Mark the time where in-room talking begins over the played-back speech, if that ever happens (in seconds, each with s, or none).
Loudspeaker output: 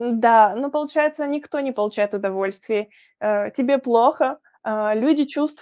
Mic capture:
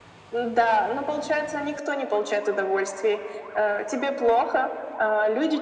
none